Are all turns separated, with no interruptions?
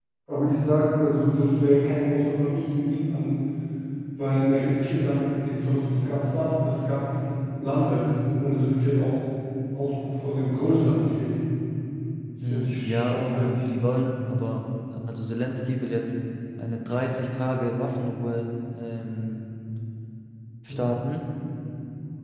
No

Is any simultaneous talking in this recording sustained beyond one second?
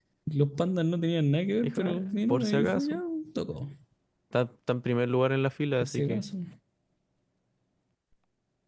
Yes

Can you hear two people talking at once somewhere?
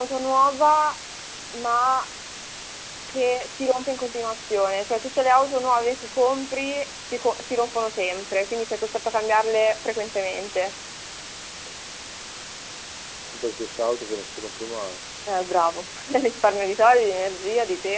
No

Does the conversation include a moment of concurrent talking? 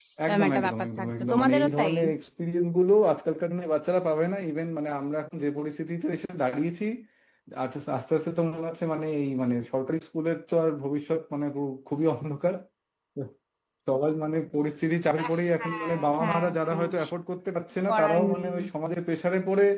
Yes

